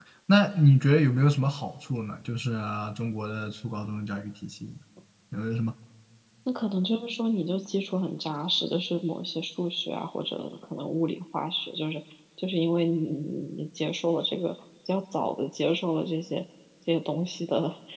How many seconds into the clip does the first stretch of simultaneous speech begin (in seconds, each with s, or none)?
none